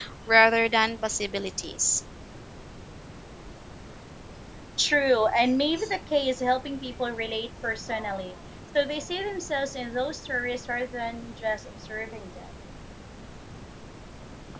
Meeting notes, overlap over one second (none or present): none